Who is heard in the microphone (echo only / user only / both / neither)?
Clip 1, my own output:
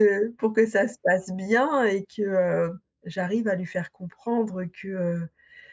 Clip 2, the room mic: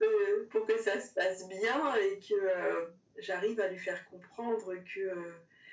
echo only